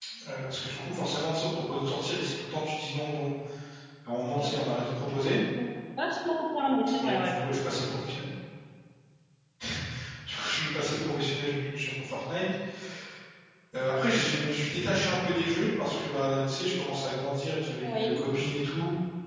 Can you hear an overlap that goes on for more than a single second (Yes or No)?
No